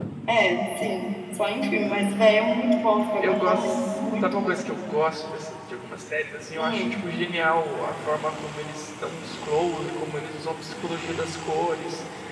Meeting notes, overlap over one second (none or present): present